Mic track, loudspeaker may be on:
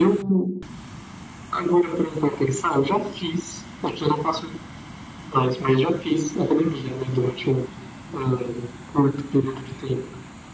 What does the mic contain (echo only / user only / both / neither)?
echo only